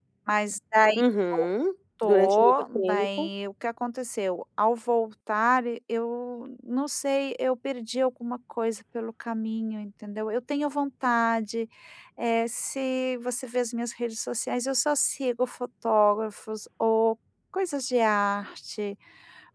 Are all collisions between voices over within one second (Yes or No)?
No